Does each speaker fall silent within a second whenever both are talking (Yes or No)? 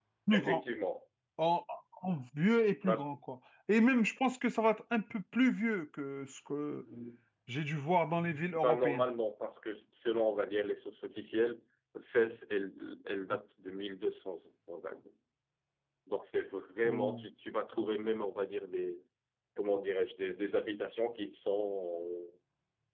Yes